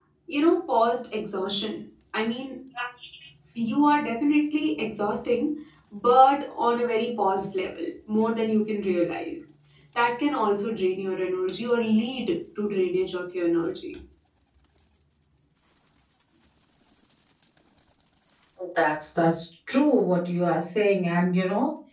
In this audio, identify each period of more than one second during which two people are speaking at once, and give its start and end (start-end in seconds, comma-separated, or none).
none